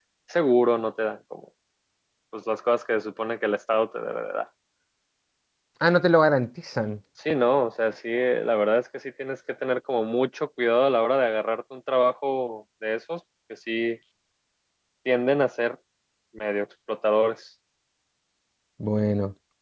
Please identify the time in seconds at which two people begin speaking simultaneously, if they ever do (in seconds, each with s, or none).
none